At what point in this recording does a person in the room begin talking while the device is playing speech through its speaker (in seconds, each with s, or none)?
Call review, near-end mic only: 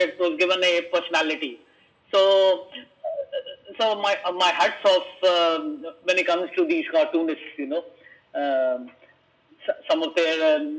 none